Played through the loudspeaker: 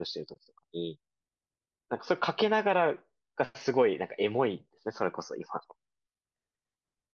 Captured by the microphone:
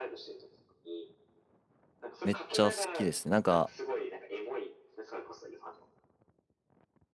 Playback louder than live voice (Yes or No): No